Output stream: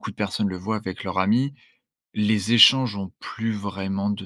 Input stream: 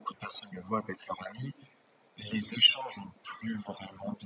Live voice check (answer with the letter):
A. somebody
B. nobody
B